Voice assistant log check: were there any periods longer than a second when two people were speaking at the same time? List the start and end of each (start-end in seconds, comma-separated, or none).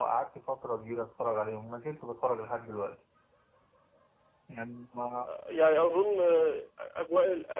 none